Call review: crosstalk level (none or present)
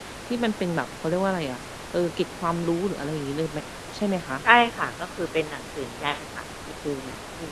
none